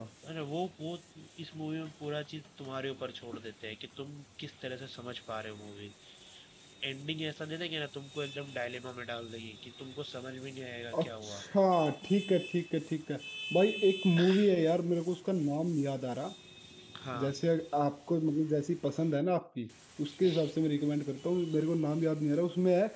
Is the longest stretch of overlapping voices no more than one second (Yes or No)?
Yes